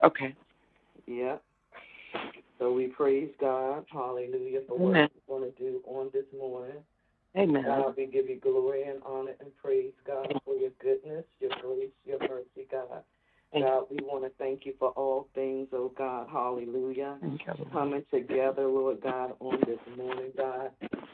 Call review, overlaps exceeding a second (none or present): none